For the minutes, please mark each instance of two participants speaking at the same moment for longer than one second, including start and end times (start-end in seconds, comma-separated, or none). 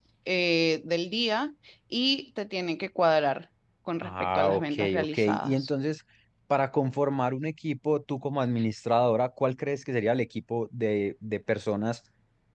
4.0-5.7